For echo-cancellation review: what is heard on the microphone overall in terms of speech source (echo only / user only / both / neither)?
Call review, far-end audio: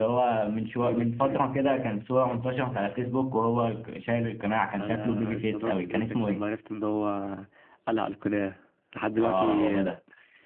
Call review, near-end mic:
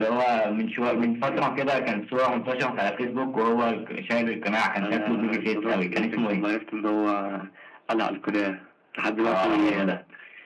echo only